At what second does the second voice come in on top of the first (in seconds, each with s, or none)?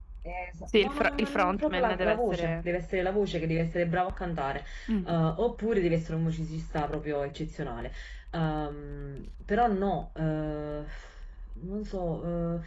0.8 s